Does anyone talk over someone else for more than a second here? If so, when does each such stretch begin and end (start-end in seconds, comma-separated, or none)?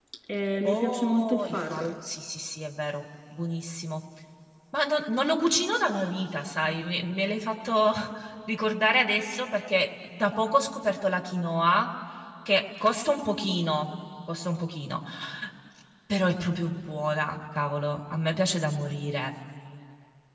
0.6-2.0